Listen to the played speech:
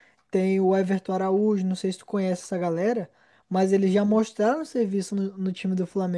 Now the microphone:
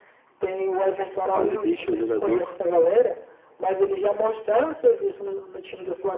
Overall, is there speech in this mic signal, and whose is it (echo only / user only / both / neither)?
both